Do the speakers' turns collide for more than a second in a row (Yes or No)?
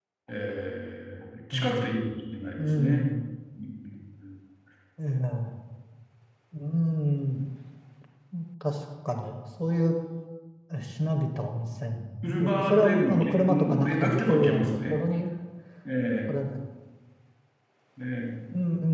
Yes